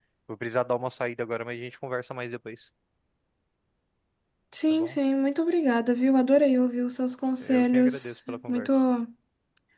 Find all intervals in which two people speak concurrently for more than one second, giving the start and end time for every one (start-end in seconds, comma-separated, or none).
7.4-8.7